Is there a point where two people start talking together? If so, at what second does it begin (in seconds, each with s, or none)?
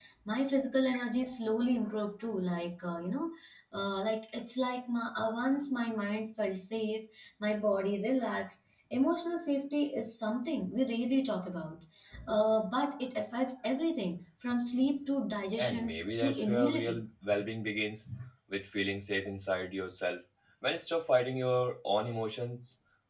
15.6 s